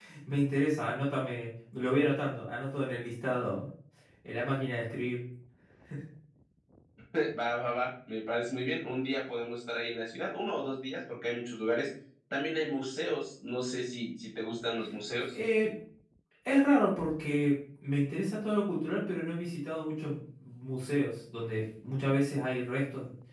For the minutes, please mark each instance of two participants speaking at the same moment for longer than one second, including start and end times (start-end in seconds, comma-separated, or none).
none